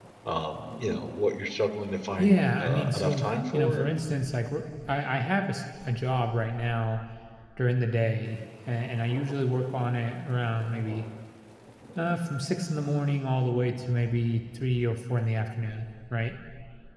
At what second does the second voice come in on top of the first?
2.2 s

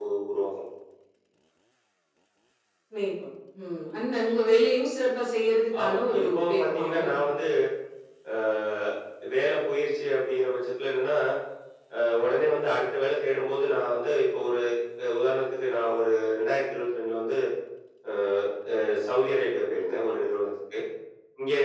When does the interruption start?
5.7 s

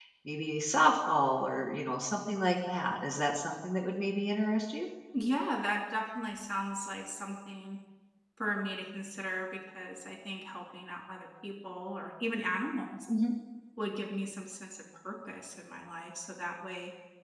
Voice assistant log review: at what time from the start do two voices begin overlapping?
none

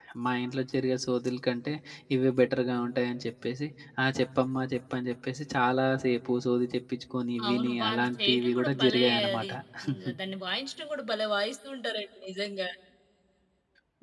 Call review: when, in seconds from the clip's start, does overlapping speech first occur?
7.4 s

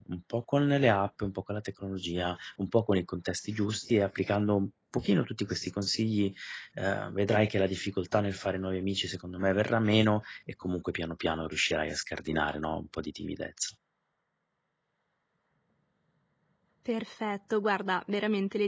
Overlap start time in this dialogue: none

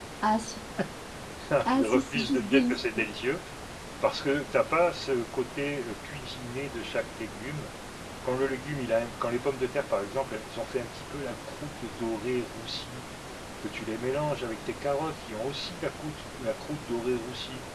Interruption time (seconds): 1.7 s

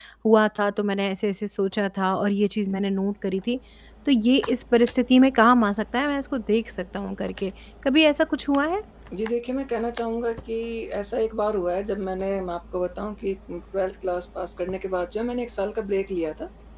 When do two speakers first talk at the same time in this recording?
none

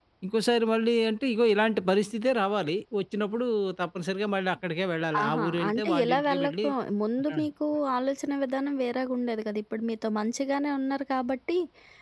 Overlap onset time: 5.1 s

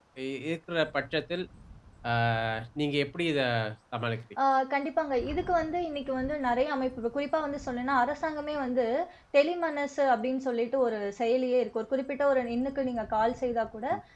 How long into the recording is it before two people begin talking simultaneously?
none

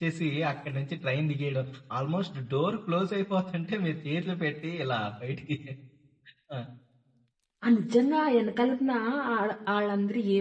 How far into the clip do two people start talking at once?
none

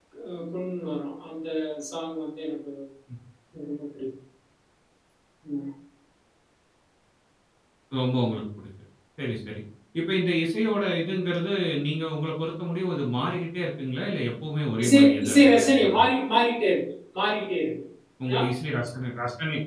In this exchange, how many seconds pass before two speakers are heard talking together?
14.8 s

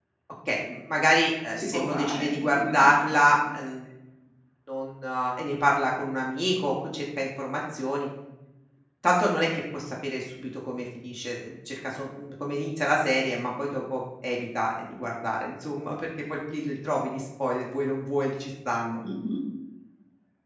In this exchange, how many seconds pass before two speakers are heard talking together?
1.6 s

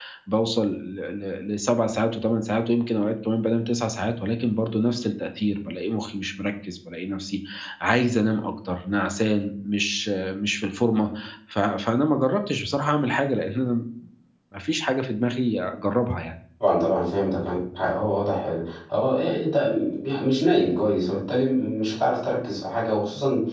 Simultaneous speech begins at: none

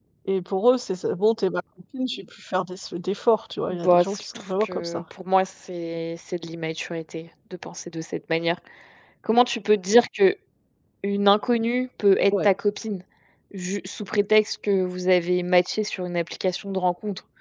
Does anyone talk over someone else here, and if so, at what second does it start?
3.7 s

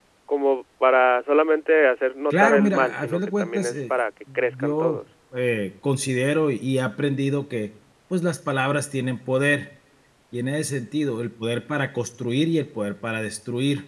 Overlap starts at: 2.3 s

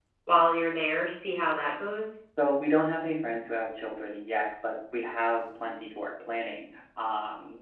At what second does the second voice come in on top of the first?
none

